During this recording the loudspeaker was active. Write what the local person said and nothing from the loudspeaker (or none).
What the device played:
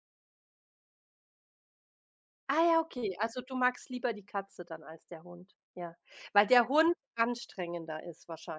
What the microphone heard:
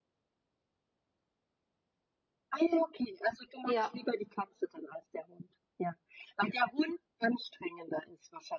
Ja.